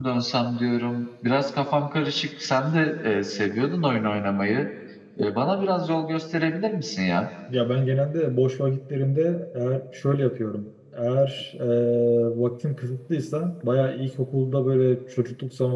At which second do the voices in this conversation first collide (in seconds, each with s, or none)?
none